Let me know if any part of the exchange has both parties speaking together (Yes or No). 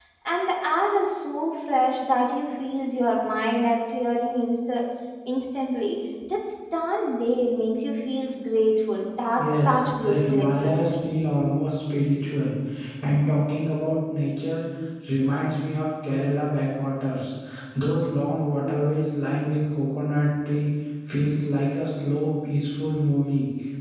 Yes